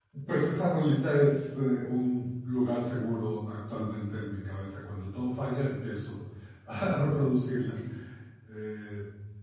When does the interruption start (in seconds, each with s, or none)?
none